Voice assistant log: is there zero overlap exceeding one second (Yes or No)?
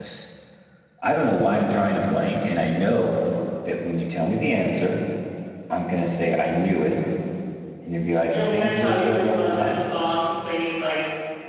No